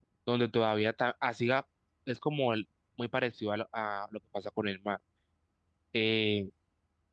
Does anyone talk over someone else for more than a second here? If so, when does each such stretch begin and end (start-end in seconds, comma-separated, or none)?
none